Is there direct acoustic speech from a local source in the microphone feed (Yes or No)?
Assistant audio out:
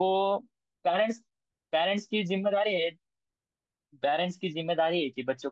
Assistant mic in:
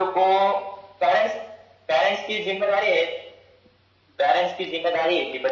No